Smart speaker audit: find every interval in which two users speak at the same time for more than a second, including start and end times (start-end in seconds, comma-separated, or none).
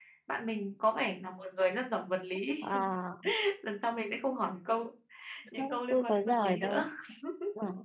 5.6-6.8